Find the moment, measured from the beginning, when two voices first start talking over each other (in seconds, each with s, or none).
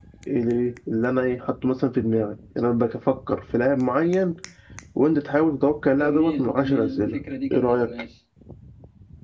5.9 s